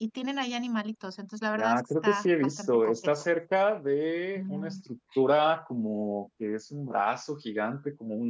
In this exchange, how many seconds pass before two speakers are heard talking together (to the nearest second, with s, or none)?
2 s